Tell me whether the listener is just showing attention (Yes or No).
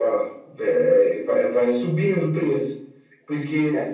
Yes